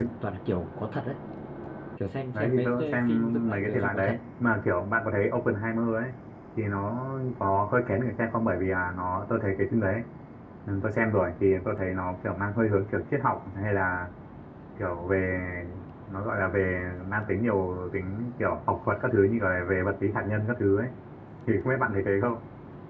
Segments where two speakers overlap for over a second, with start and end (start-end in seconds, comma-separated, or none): 2.3-4.1